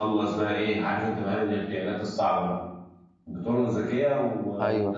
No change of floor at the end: Yes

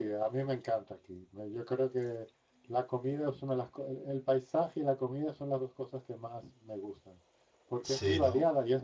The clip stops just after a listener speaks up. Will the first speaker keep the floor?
Yes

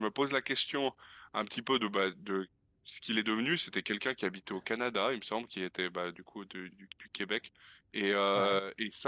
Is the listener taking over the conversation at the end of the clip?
No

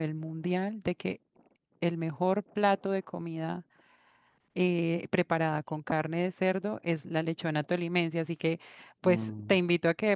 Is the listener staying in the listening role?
Yes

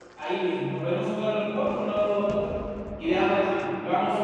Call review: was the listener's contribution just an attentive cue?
Yes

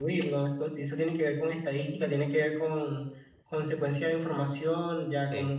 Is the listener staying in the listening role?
Yes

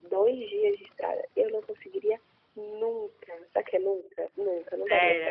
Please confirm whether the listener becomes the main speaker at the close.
Yes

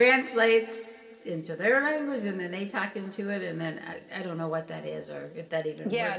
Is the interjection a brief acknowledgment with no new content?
No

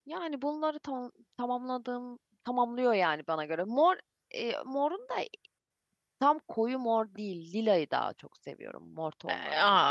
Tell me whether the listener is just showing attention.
No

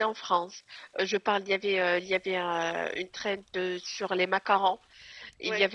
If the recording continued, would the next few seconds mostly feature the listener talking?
No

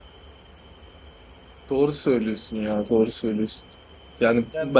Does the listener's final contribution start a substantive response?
No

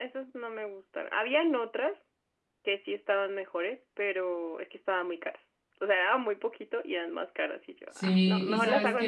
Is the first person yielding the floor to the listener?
Yes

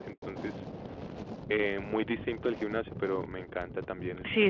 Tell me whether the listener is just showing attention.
No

